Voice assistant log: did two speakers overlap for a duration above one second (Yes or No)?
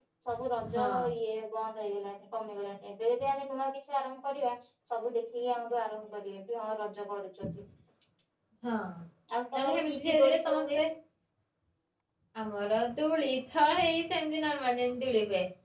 Yes